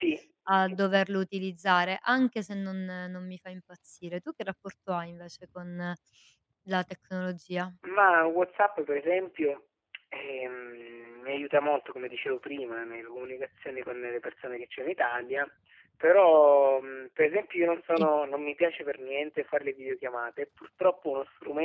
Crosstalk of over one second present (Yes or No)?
No